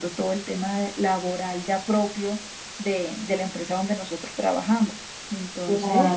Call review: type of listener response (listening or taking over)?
taking over